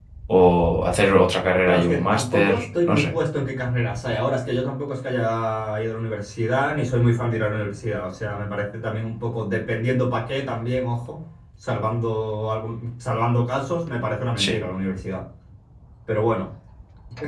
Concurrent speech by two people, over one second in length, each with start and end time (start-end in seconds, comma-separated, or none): 1.7-3.2